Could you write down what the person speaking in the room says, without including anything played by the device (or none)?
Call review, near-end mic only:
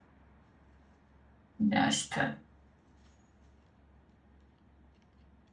Ya işte.